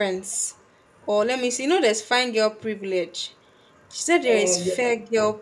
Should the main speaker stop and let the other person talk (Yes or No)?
No